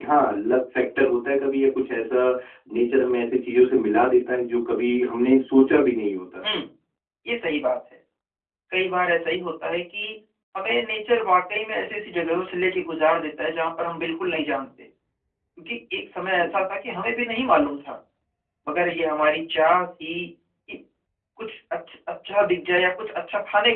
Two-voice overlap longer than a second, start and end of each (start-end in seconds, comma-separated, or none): none